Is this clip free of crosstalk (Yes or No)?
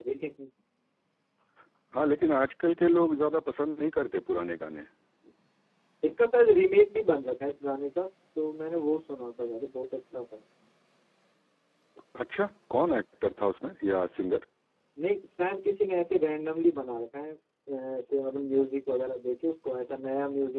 Yes